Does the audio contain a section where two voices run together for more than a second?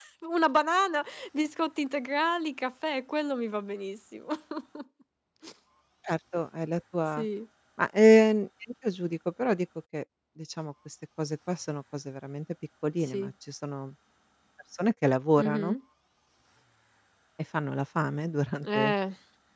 No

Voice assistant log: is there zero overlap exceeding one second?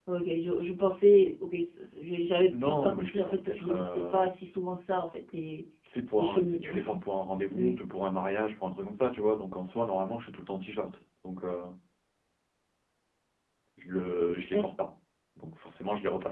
No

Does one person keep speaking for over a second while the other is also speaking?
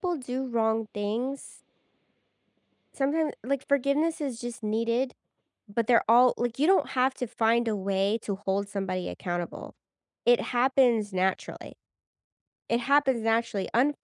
No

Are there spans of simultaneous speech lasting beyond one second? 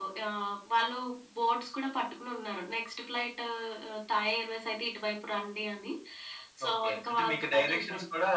Yes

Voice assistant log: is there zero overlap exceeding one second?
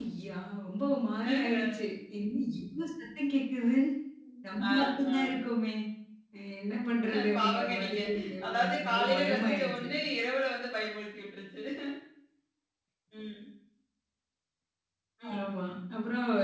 No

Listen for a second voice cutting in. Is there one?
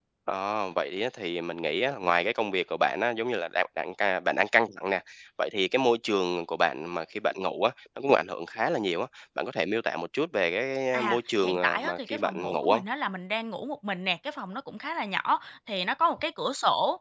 Yes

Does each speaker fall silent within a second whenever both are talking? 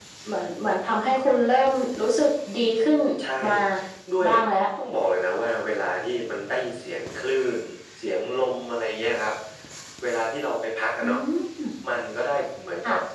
Yes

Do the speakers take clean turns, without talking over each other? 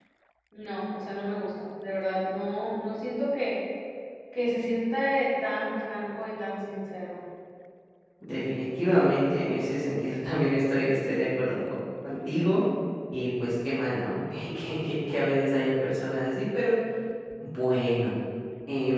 Yes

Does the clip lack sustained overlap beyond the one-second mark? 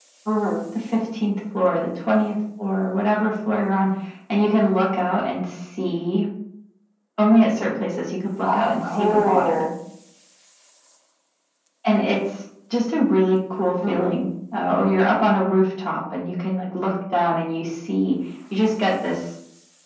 No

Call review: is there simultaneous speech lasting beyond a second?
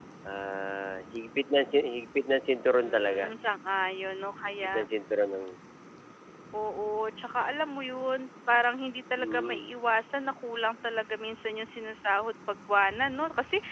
No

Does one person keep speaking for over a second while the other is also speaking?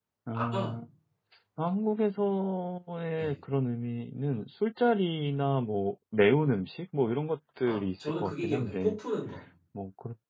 Yes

